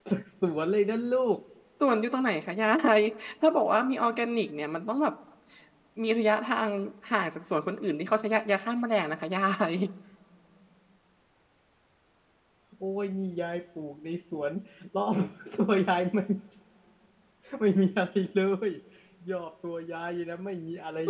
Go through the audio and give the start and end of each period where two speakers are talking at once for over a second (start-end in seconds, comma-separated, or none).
none